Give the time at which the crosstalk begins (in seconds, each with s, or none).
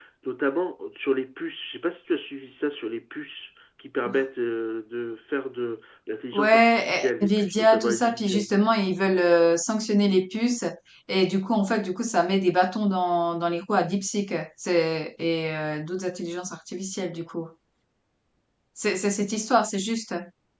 6.3 s